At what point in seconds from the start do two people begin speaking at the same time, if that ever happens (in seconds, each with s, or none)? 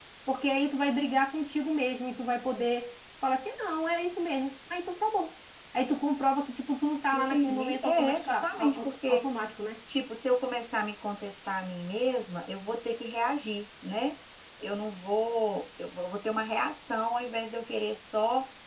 7.1 s